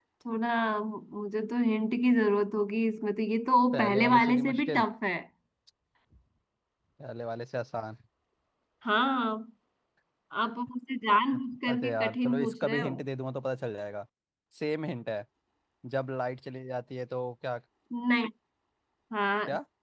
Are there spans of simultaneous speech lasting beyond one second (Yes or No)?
Yes